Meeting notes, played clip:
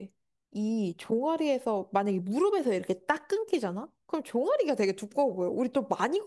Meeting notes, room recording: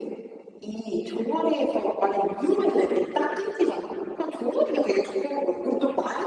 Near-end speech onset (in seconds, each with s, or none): none